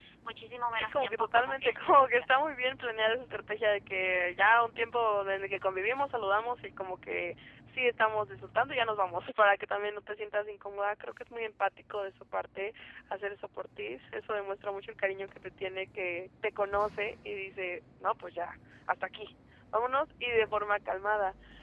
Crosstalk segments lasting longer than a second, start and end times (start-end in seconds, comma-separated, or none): 0.7-2.6